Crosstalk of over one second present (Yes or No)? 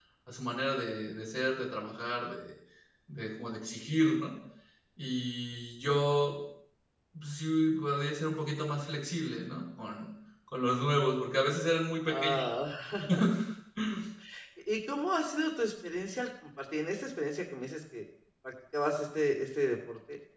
No